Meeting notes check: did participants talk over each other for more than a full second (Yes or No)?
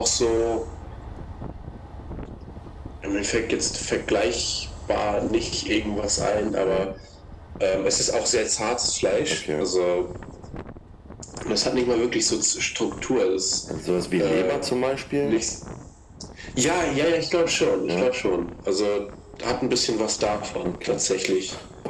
No